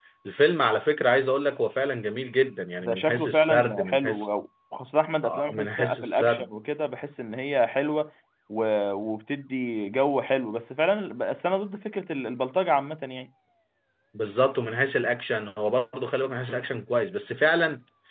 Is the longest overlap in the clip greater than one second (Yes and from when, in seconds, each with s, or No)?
Yes, from 2.8 s